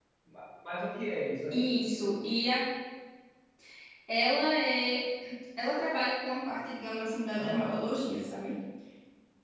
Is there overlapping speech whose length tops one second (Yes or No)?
No